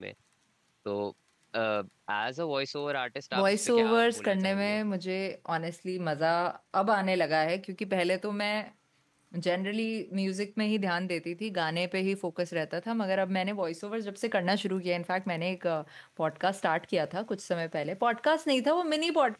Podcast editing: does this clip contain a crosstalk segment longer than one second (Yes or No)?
Yes